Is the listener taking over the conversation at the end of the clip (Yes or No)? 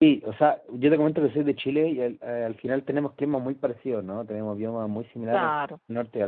No